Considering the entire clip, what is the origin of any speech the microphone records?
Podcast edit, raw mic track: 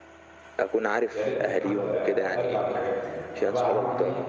both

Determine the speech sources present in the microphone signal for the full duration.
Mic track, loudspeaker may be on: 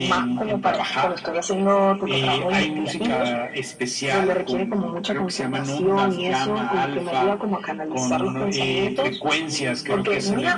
echo only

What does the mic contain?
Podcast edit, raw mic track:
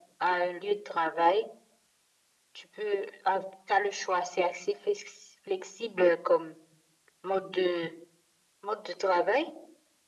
echo only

